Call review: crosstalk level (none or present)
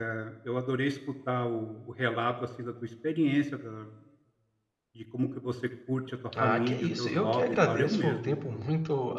present